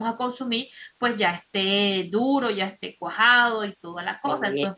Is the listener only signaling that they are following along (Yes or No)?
No